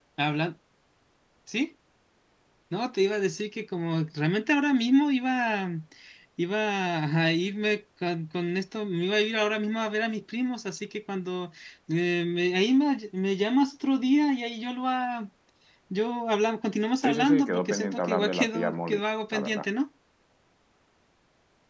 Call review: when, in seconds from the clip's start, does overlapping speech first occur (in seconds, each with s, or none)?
17.0 s